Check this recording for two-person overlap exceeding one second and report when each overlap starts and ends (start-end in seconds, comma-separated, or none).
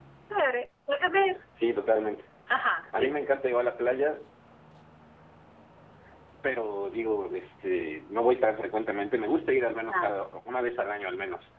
none